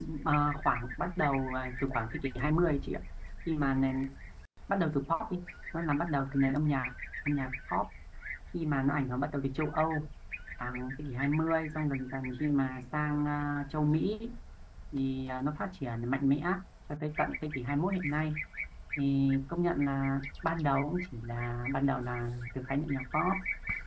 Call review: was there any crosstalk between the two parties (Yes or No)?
No